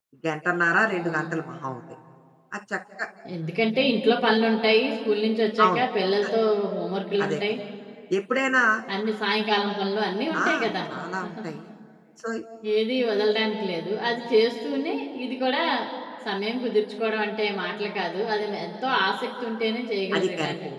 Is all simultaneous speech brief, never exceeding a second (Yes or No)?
Yes